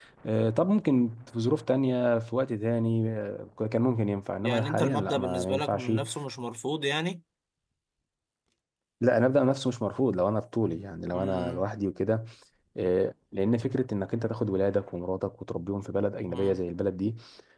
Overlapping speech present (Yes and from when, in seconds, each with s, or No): Yes, from 4.4 s